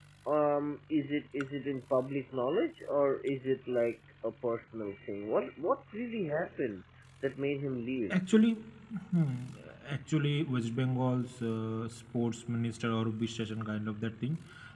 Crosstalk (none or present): none